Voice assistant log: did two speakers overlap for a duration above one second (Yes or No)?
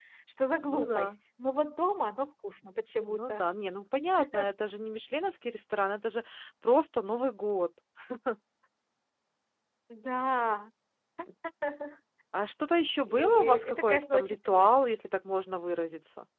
Yes